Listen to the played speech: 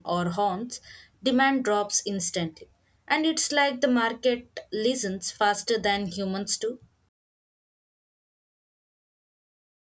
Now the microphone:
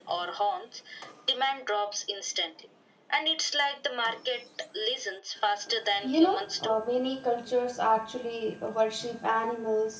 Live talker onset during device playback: 6.0 s

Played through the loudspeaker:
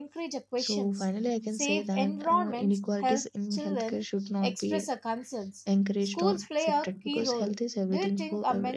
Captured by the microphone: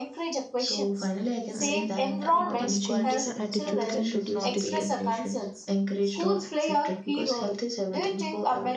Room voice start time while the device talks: 1.5 s

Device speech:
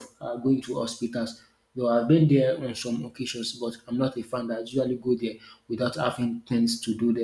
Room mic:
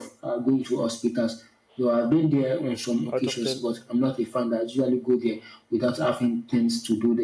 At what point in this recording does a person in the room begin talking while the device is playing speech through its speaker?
3.1 s

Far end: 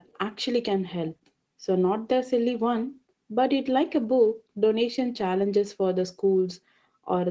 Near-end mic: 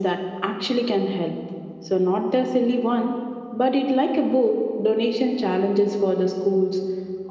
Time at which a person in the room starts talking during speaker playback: none

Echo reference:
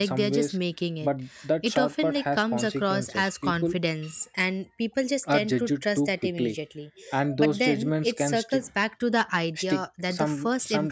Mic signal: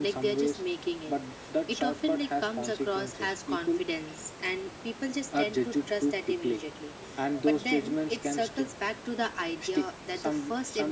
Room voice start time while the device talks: none

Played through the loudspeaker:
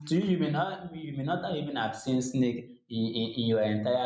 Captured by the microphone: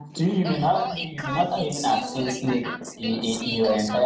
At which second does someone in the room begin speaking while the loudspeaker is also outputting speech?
0.4 s

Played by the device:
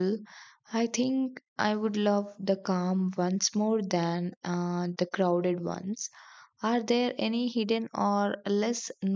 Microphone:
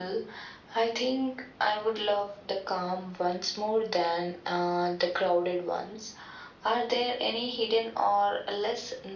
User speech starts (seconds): none

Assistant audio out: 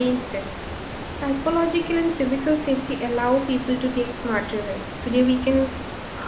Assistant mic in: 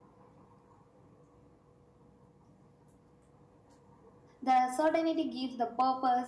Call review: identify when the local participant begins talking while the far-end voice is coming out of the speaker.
4.4 s

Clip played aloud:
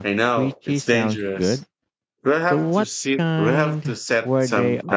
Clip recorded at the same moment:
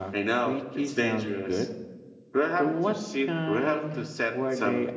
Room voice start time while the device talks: none

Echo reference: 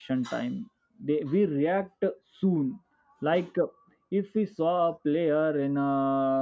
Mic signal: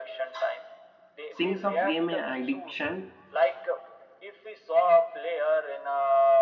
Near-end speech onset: 1.3 s

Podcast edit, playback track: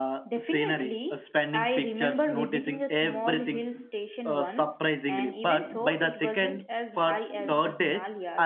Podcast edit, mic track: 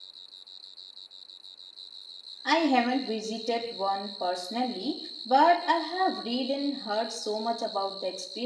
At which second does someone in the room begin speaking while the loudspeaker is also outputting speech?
2.4 s

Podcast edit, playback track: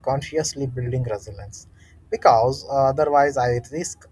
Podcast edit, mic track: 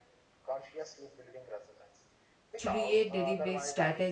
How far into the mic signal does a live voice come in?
2.6 s

